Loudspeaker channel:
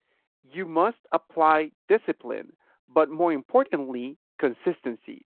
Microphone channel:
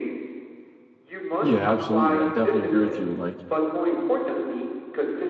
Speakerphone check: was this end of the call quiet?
No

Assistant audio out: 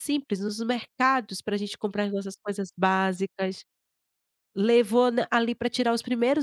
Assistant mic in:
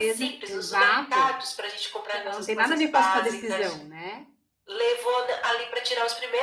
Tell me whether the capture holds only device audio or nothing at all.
No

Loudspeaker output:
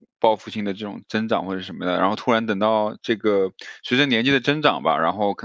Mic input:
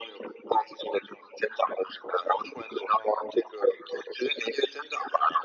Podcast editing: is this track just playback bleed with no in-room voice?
Yes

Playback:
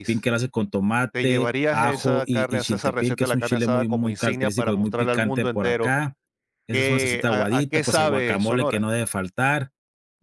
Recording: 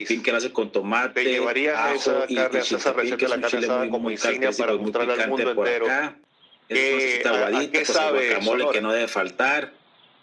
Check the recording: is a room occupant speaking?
No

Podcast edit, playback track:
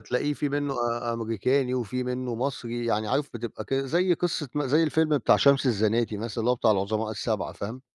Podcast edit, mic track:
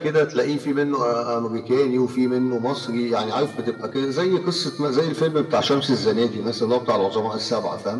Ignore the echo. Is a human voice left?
No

